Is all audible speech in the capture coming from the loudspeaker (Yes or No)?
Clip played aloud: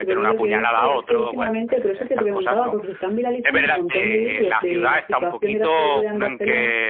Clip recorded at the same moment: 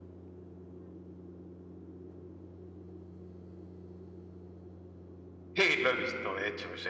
No